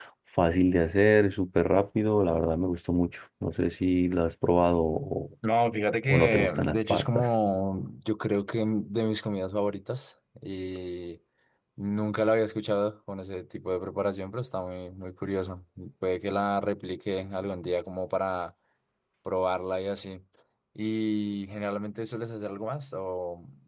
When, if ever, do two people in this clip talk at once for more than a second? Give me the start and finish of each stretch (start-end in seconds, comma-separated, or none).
6.1-7.3